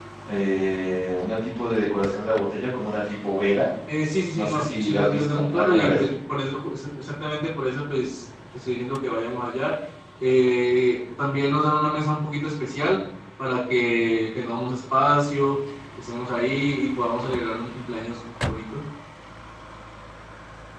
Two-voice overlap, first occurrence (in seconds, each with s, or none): 4.3 s